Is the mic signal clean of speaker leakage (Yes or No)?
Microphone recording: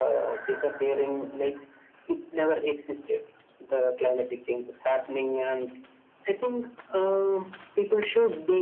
No